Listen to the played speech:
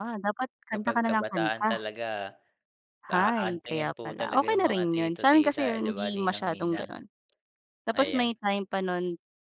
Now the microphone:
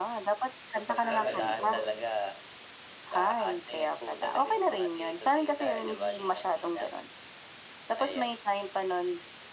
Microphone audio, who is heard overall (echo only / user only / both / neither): both